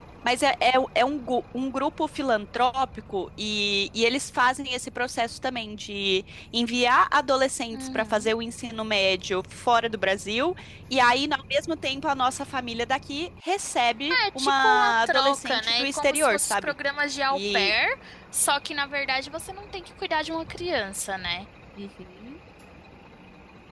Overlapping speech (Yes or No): Yes